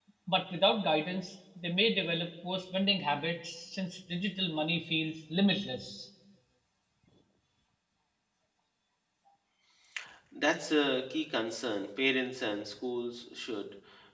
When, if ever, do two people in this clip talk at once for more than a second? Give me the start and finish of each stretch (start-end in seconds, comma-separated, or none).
none